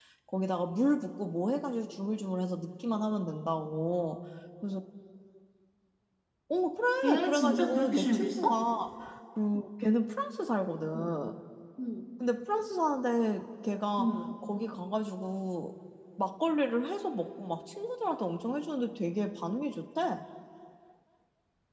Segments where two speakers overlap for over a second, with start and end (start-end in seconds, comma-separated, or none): 7.0-8.5